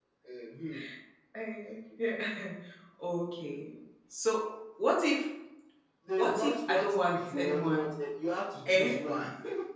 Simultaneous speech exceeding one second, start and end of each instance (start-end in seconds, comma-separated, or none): 6.2-8.0